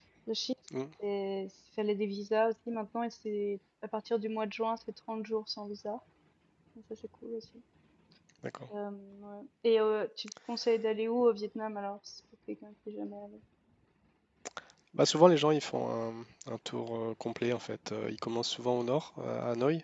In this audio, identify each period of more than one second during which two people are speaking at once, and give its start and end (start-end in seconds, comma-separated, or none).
none